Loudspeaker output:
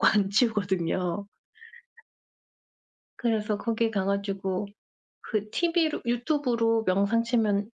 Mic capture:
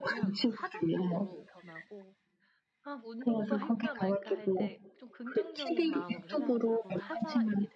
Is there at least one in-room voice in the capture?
Yes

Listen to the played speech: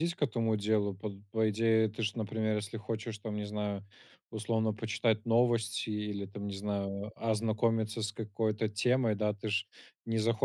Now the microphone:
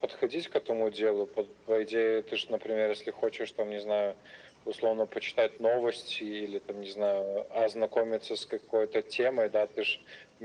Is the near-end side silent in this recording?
Yes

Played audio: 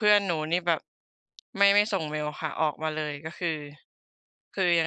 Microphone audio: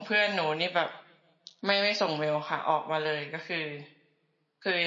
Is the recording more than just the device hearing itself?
No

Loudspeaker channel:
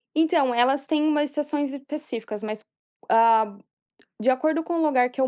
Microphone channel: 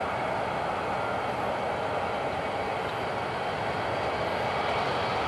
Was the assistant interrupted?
No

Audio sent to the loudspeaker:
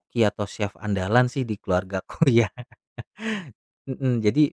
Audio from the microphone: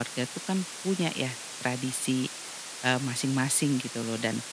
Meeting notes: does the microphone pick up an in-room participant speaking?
Yes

